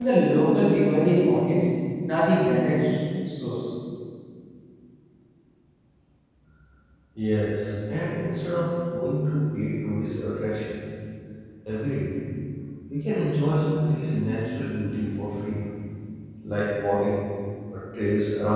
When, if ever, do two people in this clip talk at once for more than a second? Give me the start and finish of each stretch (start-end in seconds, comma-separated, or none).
none